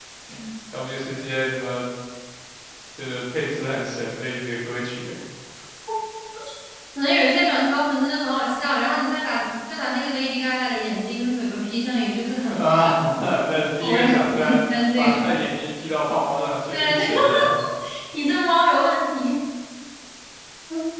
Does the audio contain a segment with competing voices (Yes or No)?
Yes